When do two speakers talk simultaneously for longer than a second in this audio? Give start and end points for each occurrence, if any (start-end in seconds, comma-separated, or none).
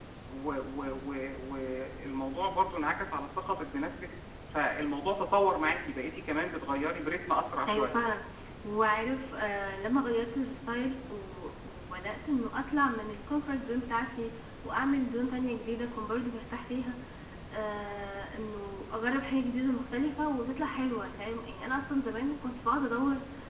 none